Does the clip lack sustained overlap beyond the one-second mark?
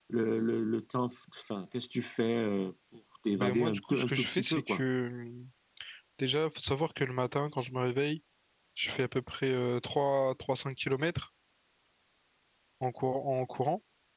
No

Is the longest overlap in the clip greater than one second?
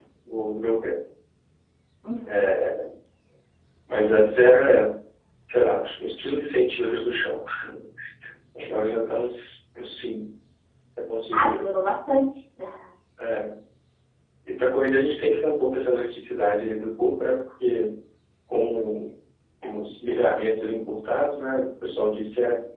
No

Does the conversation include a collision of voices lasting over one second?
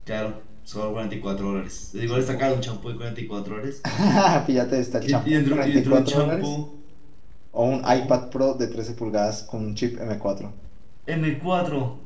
Yes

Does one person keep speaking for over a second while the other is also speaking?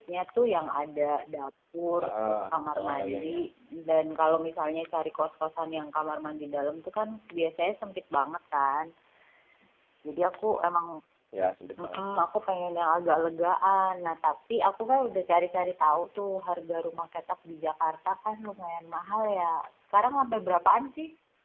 Yes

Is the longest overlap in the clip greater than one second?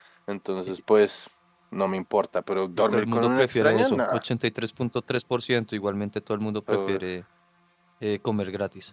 Yes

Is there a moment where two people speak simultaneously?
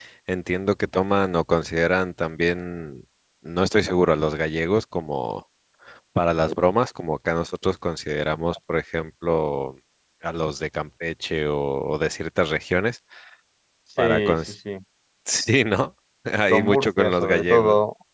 Yes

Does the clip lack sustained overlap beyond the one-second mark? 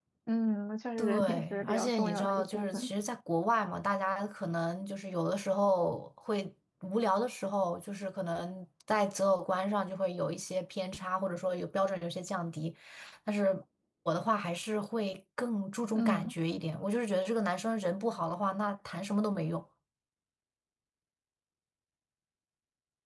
No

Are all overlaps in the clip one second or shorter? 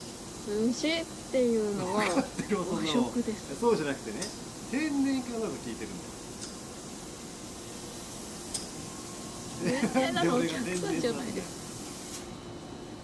No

